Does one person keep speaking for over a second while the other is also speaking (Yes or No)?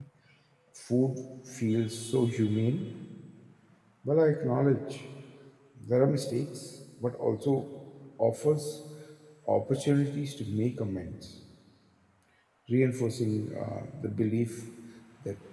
No